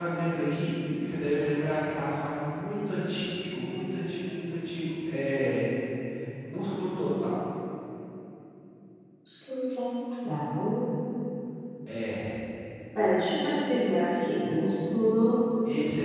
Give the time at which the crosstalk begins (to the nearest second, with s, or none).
none